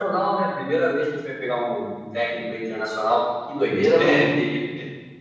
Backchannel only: No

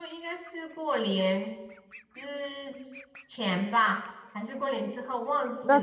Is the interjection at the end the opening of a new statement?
Yes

